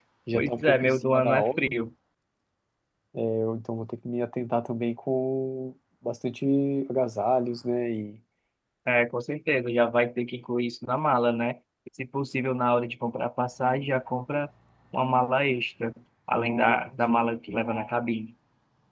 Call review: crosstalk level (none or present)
present